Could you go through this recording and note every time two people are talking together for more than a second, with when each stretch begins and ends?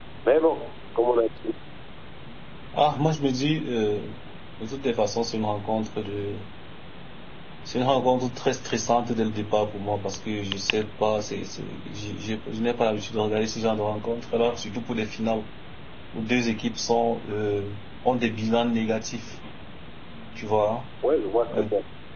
none

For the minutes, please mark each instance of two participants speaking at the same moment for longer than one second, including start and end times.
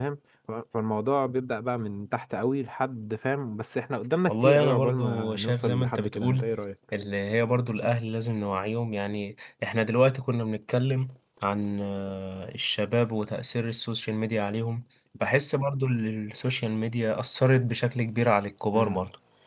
4.3-6.5

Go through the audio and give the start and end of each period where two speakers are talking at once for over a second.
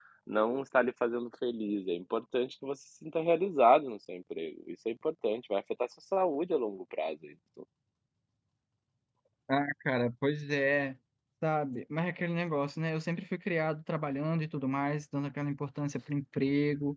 none

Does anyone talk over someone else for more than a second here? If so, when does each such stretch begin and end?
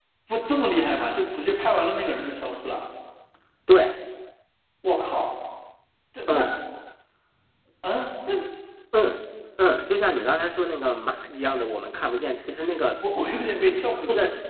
none

